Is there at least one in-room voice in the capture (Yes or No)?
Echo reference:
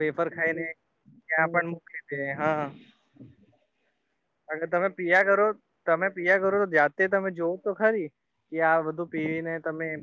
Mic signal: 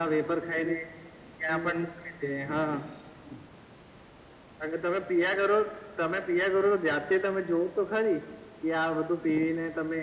No